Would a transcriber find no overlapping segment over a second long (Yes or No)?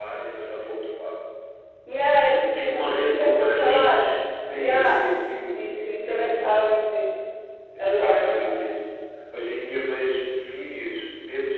No